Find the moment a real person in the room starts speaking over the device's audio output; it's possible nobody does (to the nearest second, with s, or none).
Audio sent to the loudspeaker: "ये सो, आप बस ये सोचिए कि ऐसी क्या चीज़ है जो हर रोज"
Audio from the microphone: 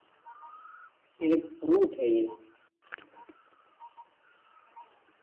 1 s